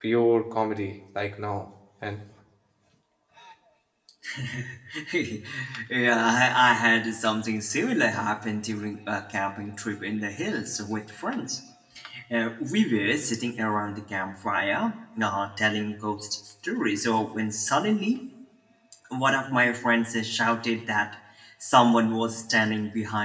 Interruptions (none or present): none